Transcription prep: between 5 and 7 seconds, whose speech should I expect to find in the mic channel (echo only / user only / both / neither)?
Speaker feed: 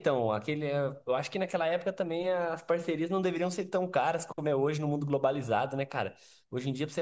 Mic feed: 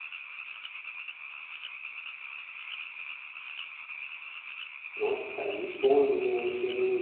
user only